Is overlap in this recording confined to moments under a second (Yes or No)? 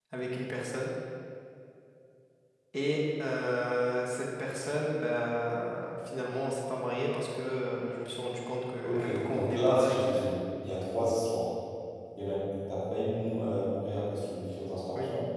No